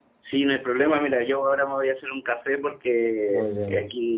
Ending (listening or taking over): listening